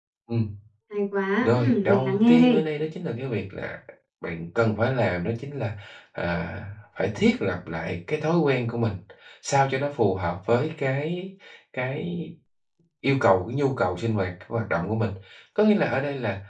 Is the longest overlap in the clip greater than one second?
Yes, from 1.4 s

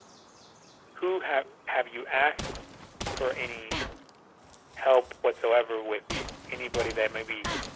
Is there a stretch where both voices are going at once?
No

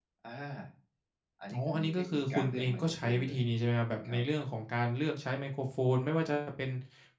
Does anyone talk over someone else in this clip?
Yes, from 1.5 s

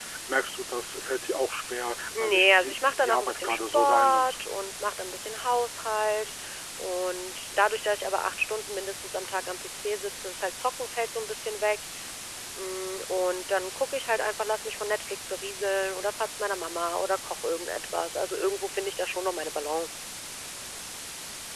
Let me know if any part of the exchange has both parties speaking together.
Yes, from 2.1 s

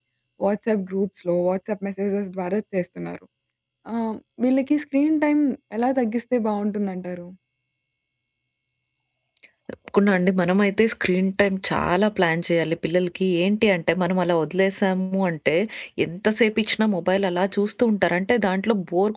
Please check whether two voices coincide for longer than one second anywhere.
No

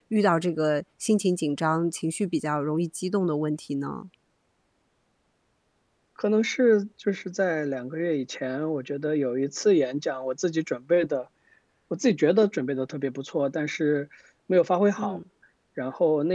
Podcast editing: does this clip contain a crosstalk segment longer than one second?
No

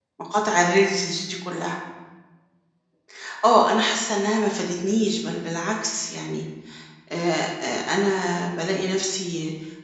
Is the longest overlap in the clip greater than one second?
No

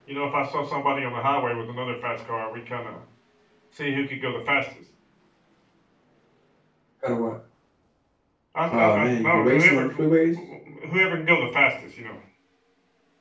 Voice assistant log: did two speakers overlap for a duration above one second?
Yes, from 8.8 s

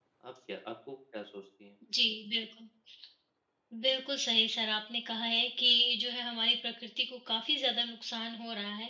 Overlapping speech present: No

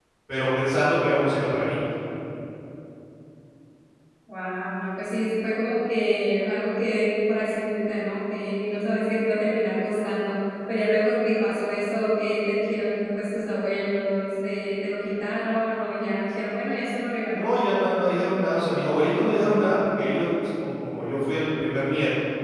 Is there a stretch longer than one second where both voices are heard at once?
No

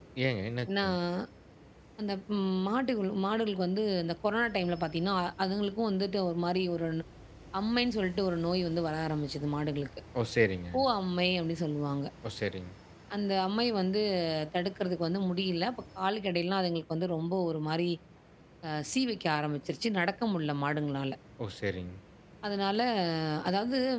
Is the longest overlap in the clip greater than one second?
No

